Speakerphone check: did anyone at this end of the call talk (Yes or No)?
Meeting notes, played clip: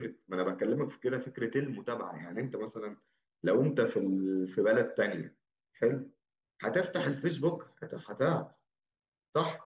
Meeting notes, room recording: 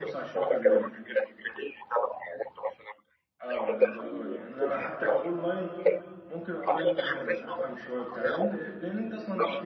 Yes